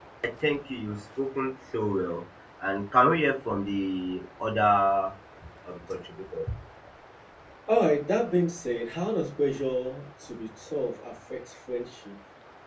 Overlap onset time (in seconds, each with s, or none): none